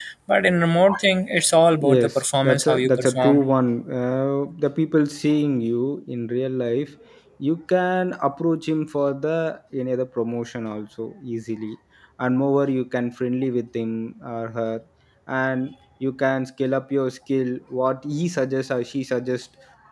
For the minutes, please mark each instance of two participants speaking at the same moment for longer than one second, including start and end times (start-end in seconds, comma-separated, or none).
1.8-3.4